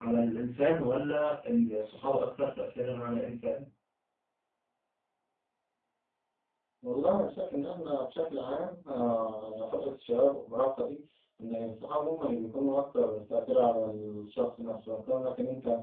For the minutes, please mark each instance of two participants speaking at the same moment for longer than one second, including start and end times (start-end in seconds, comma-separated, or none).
none